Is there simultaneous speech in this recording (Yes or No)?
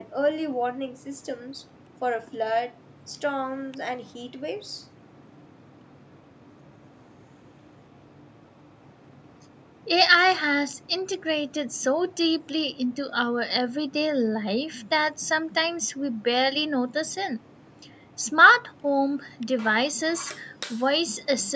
No